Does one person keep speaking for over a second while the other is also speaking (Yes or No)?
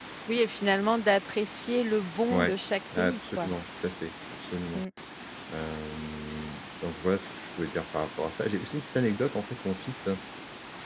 No